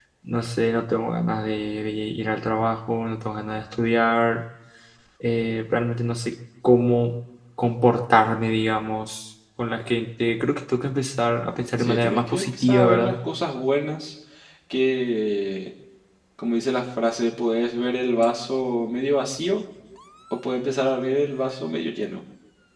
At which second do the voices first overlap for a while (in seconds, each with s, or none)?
11.8 s